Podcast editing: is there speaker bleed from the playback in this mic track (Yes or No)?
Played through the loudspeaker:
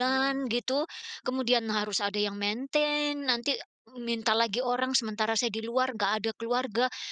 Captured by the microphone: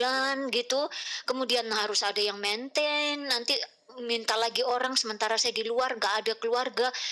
Yes